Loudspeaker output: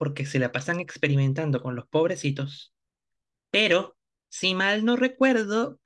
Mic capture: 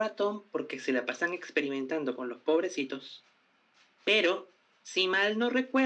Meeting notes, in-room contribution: none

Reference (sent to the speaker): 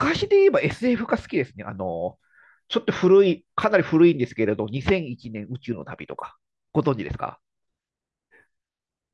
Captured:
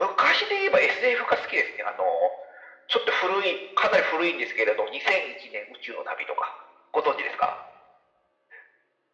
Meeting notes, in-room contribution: none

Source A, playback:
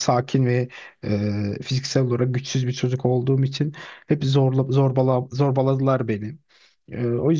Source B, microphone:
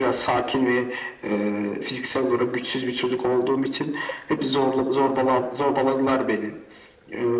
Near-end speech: none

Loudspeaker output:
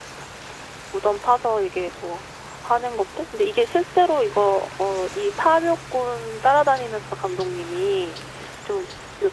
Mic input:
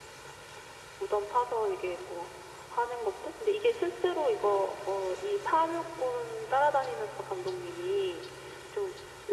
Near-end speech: none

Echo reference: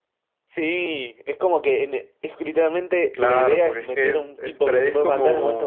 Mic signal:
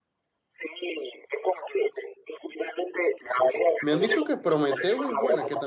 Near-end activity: present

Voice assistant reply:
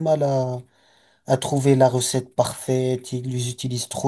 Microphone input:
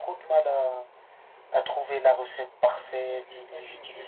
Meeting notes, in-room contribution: present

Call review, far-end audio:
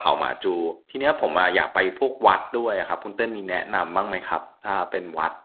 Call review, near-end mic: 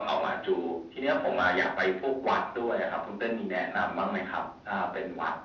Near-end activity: none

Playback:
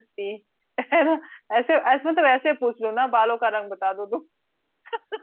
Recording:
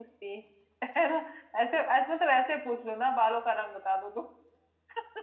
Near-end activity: none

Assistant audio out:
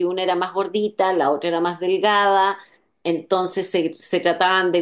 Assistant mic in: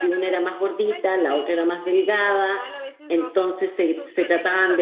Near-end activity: present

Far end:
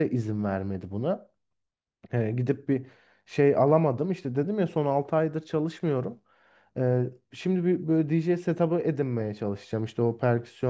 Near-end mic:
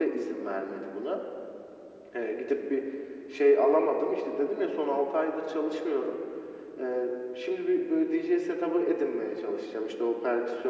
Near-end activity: none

